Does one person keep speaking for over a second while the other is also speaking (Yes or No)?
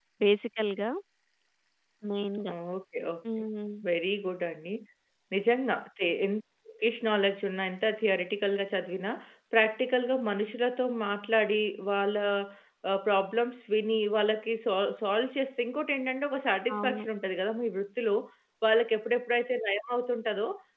No